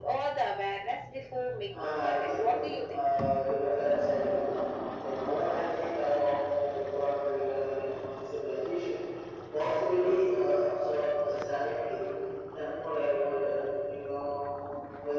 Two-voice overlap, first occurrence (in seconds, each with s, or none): 1.7 s